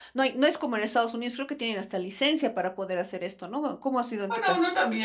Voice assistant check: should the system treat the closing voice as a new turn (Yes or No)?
Yes